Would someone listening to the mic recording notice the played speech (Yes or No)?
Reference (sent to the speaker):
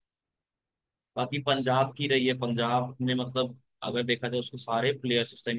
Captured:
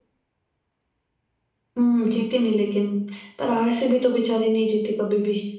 No